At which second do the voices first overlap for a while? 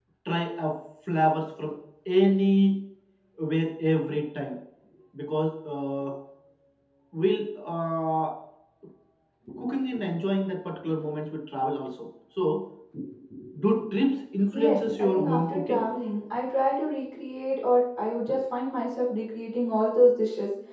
14.5 s

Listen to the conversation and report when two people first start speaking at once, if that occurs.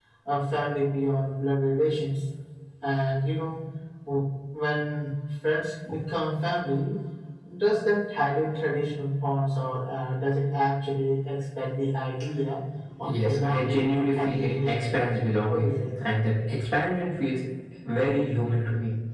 13.0 s

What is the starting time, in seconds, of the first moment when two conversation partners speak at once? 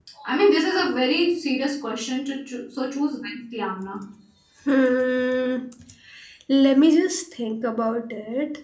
none

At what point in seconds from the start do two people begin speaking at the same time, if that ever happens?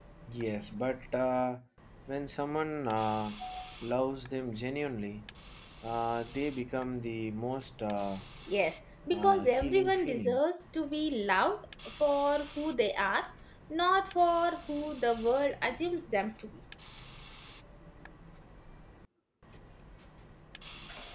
9.1 s

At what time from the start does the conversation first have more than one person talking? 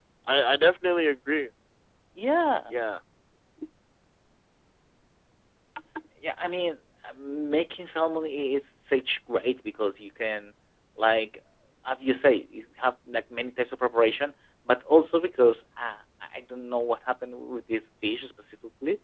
none

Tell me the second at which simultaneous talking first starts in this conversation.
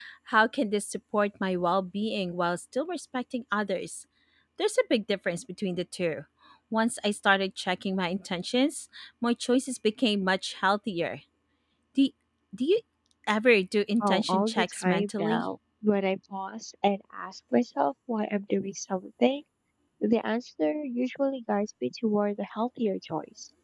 14.0 s

